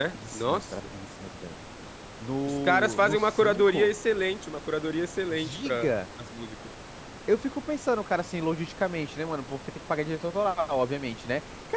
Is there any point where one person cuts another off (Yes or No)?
Yes